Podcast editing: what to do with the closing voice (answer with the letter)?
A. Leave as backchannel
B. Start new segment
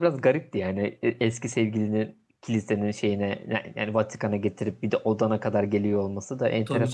B